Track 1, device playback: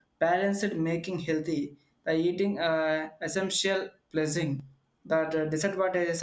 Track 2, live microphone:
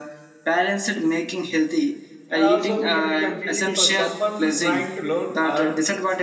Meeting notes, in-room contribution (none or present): present